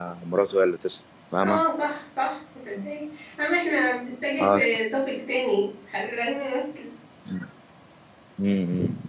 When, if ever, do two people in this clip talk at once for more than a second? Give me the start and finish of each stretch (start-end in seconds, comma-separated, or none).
none